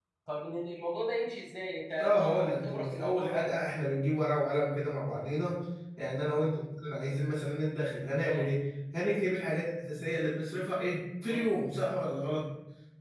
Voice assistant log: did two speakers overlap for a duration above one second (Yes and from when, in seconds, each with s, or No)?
Yes, from 2.0 s